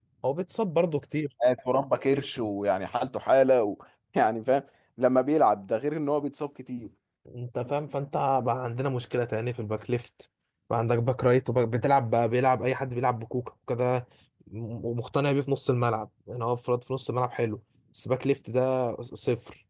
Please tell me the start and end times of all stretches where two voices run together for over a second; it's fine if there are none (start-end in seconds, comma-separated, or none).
none